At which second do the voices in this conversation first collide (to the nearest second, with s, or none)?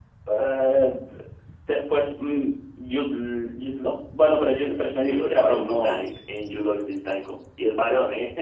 5 s